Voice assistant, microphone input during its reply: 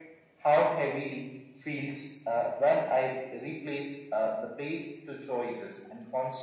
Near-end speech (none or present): none